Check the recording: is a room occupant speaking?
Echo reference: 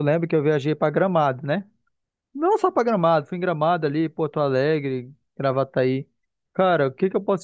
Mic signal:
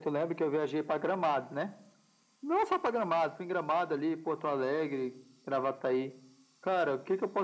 No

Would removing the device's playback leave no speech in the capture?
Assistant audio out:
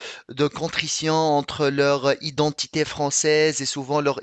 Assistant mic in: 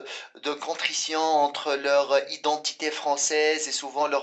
Yes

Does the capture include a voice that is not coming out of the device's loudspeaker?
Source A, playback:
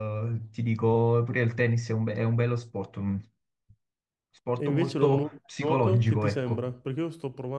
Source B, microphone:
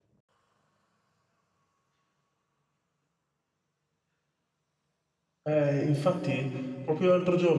Yes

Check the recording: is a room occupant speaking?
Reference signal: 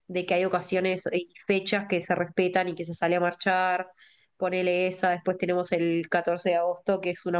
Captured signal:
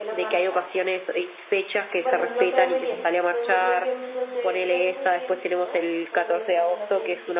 Yes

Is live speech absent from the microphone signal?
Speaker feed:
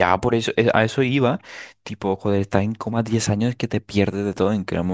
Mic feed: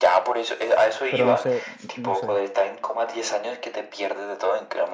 No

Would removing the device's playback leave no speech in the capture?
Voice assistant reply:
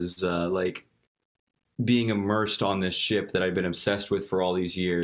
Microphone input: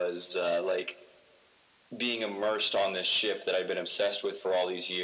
Yes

